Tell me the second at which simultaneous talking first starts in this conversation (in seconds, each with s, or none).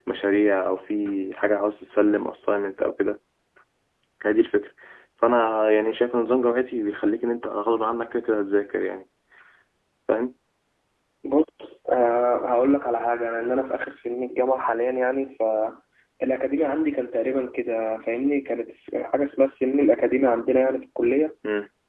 none